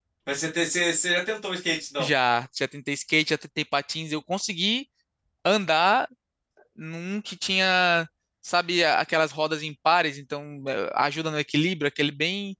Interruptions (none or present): none